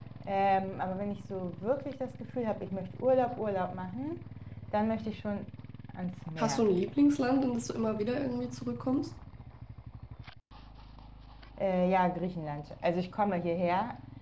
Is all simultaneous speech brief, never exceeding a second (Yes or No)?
Yes